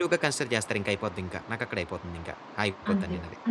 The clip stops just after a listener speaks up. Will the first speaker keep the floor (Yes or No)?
No